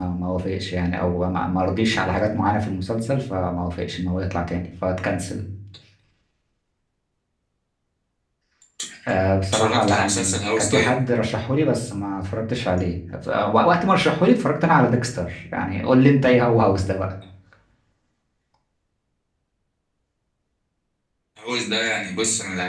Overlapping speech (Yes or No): Yes